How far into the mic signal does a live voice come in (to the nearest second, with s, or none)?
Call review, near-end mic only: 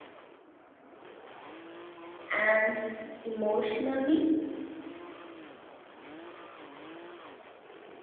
2 s